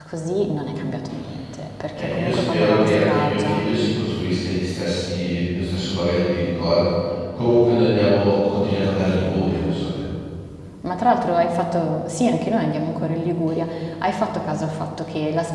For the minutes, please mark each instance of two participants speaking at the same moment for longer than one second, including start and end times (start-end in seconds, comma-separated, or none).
1.9-3.6